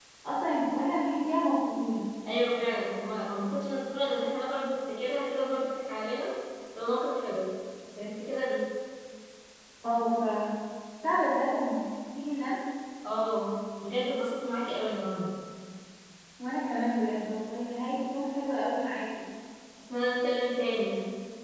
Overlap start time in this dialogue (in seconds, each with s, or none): none